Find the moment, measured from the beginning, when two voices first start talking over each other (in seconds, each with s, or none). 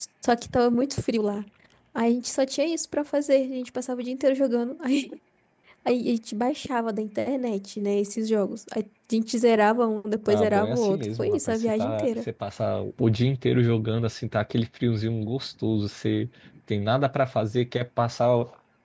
10.3 s